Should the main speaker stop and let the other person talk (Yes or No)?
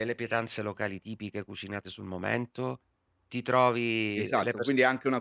Yes